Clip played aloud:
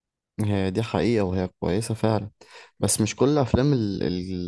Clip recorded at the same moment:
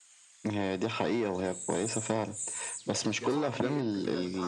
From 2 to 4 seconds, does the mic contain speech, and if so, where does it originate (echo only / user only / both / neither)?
both